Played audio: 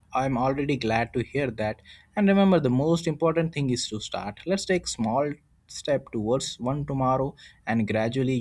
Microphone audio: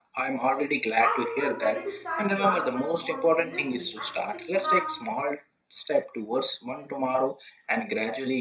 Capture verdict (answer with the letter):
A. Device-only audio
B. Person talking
B